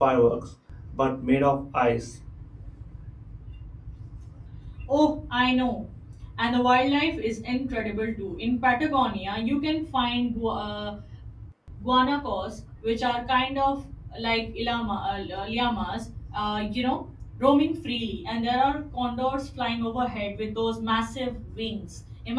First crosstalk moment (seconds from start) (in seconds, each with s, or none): none